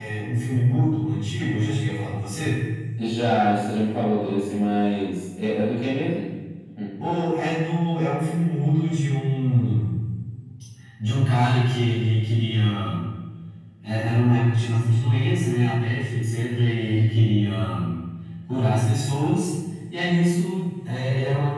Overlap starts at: none

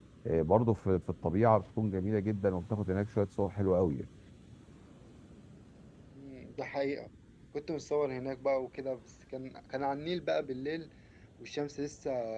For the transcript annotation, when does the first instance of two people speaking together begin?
none

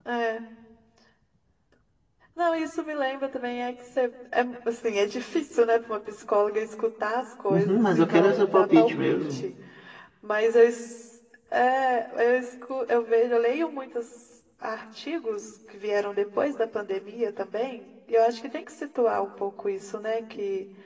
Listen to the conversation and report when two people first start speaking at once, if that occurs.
7.5 s

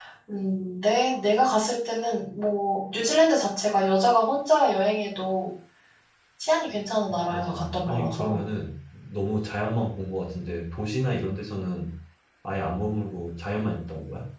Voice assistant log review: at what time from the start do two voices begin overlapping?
7.1 s

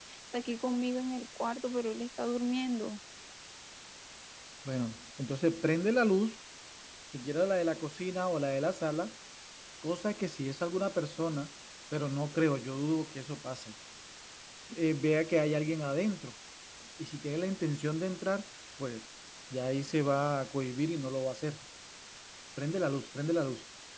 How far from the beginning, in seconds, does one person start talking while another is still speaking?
none

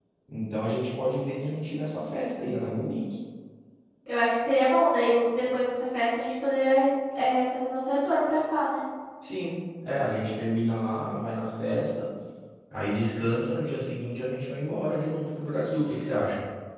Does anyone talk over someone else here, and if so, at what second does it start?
none

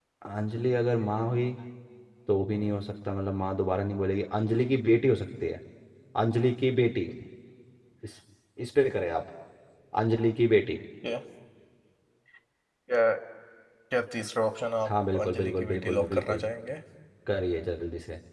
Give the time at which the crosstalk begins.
14.8 s

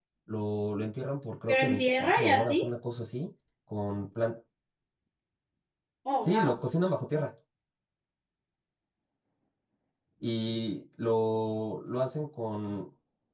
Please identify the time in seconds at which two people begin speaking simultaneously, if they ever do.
1.5 s

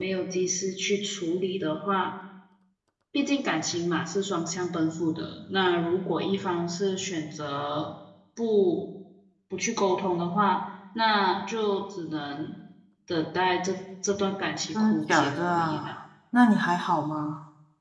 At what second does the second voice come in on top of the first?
14.7 s

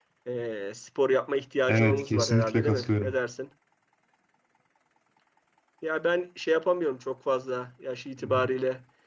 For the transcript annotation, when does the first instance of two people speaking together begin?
1.7 s

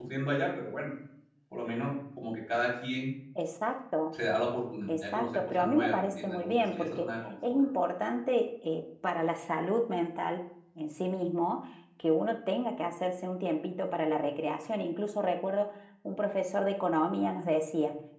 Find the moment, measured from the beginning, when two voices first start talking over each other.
4.9 s

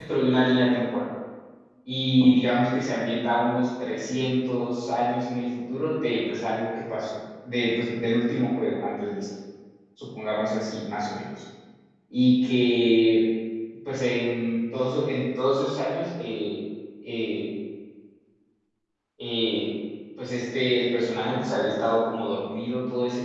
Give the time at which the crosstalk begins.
none

